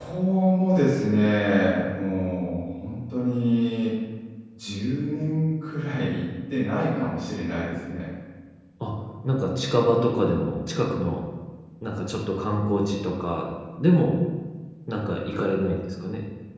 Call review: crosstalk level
none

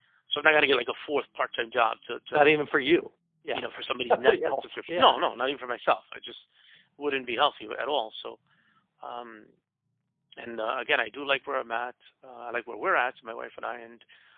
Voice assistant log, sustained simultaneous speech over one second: present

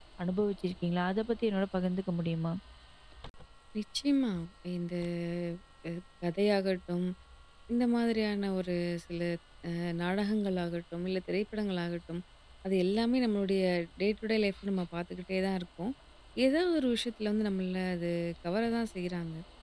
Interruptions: none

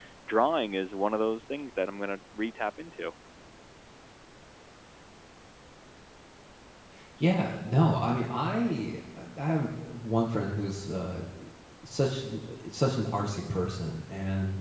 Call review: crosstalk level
none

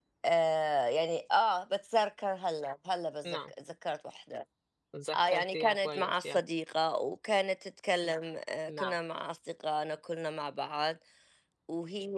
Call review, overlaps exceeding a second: present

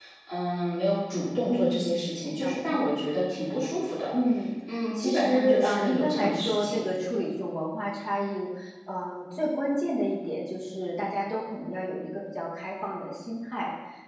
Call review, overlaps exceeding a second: present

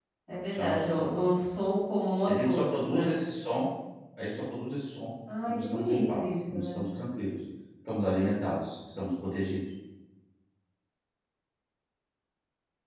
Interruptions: present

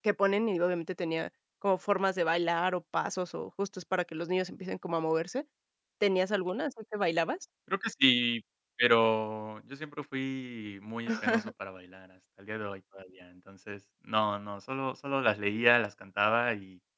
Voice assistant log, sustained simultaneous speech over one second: none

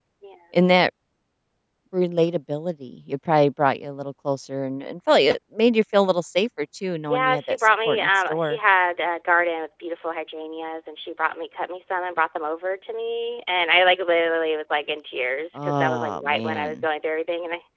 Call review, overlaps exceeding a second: present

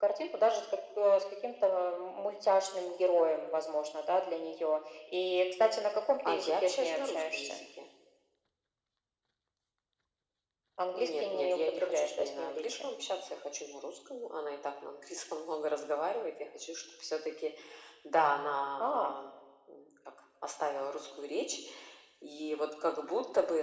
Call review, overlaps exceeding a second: present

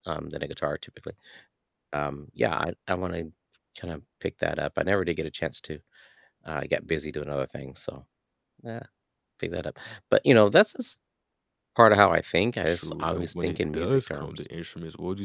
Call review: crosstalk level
present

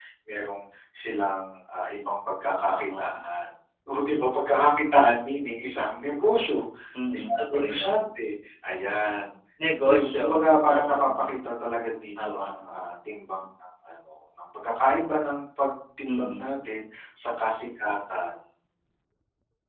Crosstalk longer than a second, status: present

